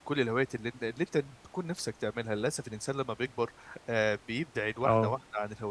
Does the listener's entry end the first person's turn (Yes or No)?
No